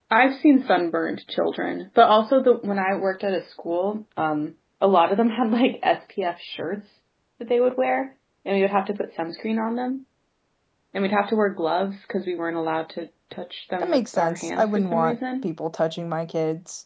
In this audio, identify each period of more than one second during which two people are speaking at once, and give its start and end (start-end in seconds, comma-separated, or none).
13.8-15.4